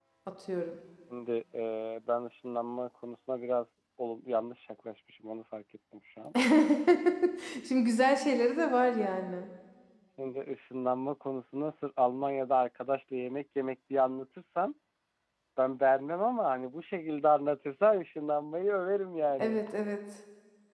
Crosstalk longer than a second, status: none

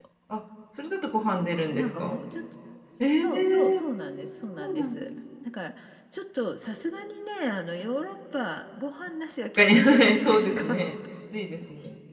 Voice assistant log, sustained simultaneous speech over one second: present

